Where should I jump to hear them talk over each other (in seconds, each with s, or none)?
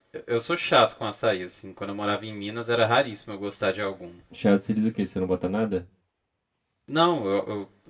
none